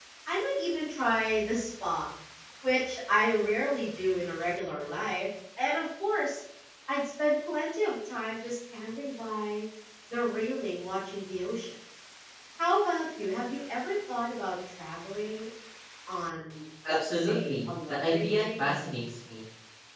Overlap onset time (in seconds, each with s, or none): 16.9 s